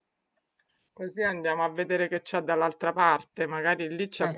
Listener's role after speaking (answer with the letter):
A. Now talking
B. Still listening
B